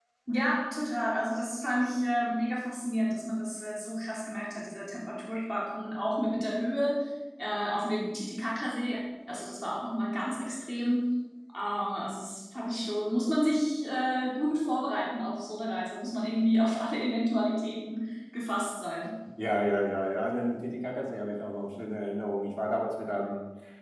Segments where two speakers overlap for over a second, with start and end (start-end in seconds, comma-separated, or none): none